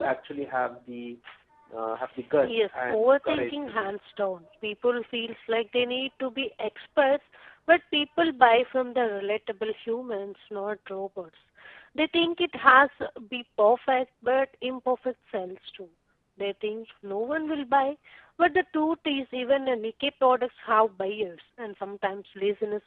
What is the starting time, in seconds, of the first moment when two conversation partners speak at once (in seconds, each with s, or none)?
2.4 s